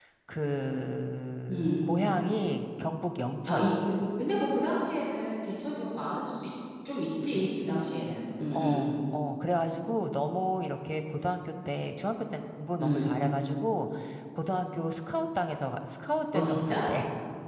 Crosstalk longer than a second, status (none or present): none